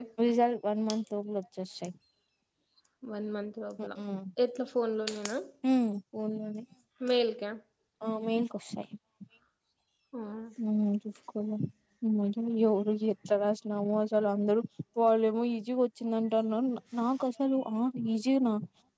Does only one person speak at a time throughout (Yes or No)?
Yes